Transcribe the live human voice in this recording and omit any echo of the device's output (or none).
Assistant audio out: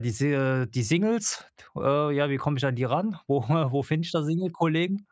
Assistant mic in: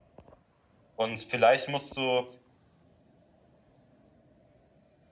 und vielleicht musst du